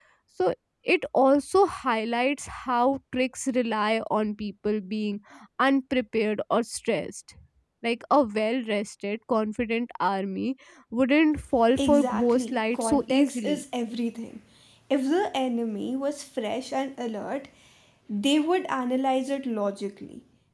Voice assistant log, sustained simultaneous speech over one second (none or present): present